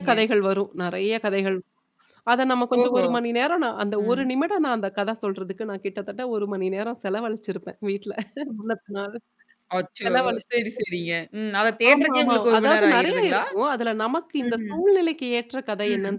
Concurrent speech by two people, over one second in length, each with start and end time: 11.9-13.4

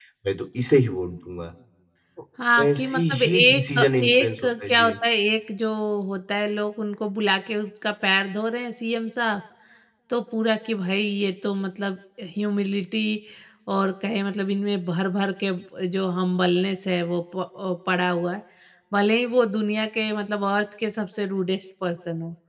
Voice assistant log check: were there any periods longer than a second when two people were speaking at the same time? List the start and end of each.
2.8-4.9

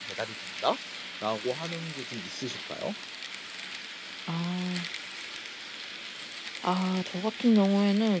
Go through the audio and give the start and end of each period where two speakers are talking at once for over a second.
none

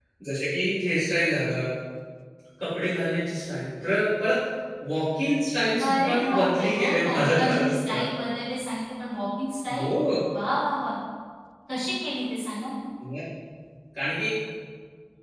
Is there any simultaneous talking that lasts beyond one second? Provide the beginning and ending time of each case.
5.8-8.0

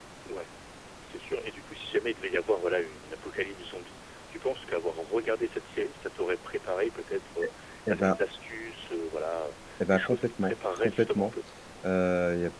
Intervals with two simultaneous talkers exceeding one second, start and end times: 9.9-11.3

